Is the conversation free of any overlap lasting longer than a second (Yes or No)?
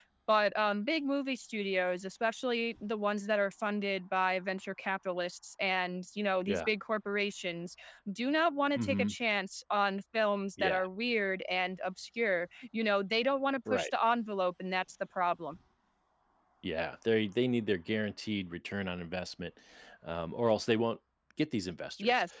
Yes